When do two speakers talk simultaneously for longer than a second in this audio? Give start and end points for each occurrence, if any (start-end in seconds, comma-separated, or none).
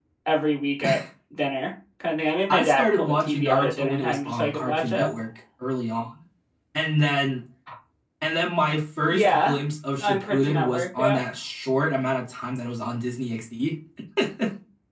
2.5-5.1, 10.0-11.2